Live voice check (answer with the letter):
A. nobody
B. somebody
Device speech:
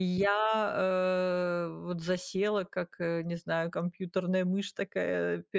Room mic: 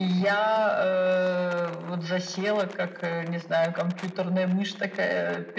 A